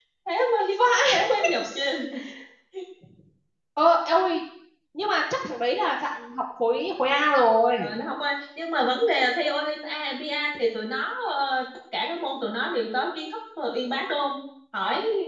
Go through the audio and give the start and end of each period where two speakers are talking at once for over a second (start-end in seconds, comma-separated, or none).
none